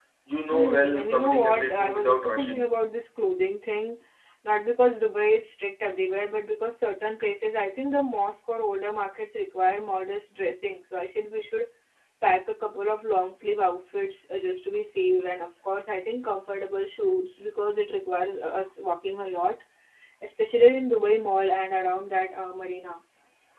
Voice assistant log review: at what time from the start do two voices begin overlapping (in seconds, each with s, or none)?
0.5 s